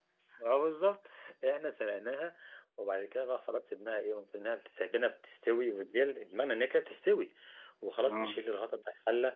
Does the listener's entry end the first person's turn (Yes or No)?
No